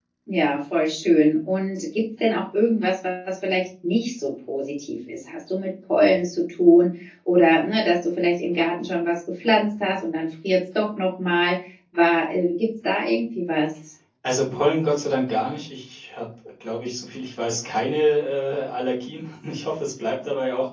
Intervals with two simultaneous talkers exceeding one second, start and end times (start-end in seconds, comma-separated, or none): none